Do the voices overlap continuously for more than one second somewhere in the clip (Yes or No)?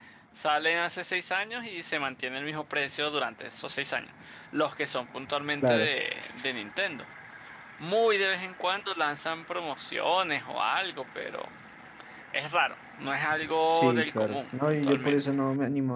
Yes